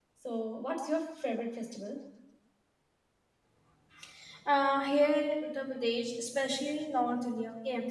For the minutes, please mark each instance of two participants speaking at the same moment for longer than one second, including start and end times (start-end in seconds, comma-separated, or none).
none